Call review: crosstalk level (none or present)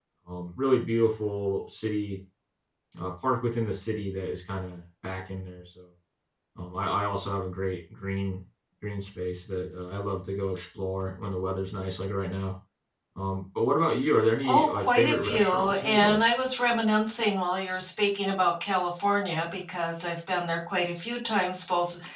present